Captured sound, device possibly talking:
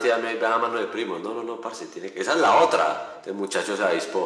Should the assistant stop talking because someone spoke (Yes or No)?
No